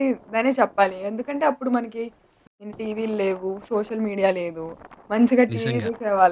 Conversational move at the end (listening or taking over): listening